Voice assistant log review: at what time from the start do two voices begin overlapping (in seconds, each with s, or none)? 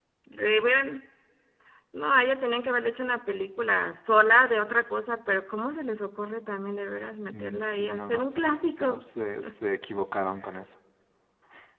7.3 s